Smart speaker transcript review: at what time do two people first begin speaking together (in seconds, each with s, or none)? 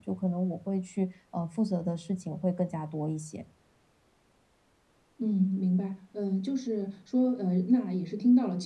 none